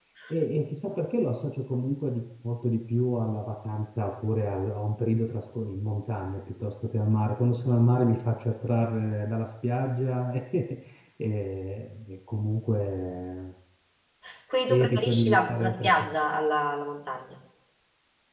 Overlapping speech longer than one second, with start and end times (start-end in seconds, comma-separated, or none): 14.7-16.1